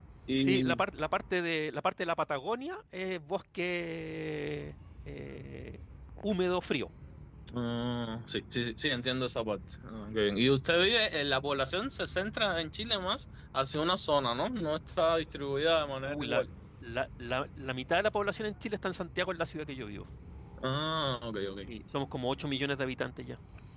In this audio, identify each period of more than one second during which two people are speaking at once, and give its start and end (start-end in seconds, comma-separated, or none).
none